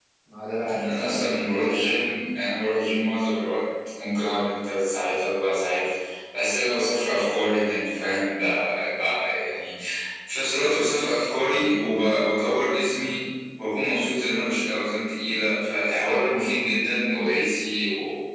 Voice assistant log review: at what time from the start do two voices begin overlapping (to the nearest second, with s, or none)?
1 s